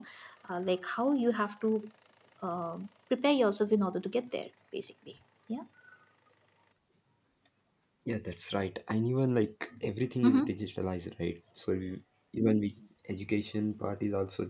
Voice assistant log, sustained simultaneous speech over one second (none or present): none